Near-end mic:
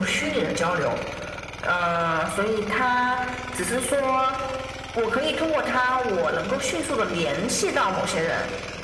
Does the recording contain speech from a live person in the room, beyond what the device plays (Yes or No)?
No